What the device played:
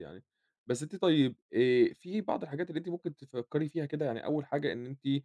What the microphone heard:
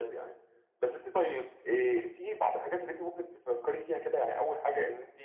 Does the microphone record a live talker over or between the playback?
No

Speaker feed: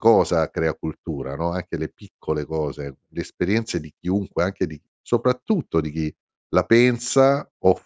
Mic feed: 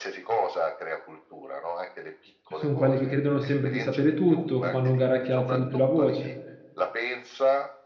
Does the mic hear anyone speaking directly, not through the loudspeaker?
Yes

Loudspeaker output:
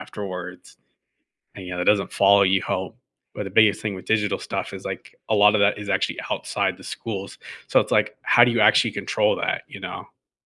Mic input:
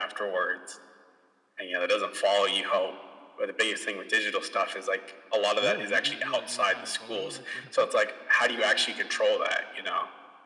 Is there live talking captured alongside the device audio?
Yes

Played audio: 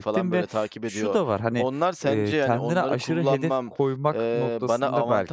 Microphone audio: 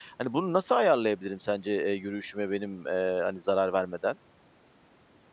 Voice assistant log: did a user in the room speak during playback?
Yes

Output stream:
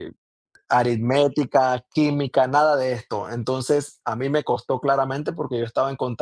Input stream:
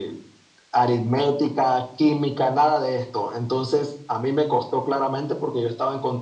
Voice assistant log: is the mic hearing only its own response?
Yes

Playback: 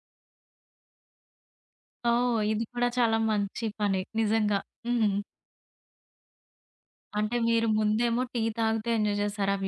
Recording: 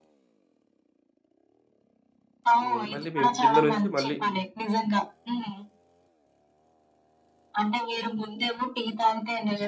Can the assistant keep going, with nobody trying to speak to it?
No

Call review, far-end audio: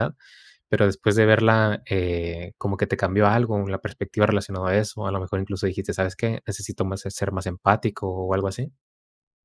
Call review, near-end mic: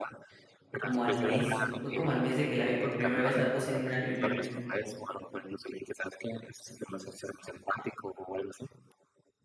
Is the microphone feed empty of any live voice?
No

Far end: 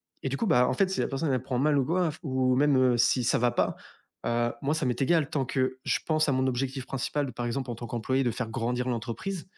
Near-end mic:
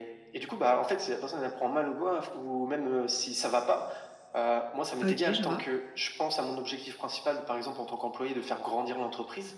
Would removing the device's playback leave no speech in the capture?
No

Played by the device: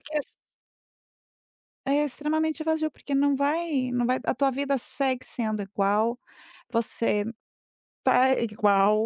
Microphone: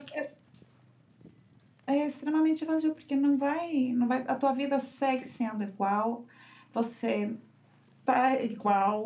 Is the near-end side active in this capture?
No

